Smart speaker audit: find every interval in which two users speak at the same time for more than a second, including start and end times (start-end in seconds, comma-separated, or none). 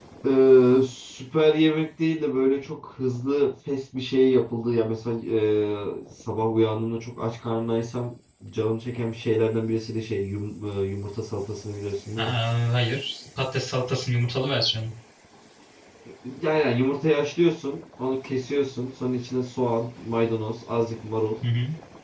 none